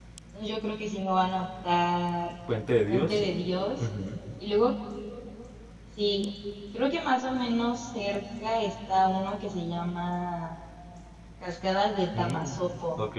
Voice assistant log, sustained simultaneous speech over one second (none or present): none